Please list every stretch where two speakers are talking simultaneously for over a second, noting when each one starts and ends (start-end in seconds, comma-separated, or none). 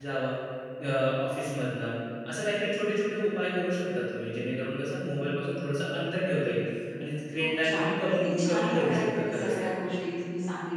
7.4-9.7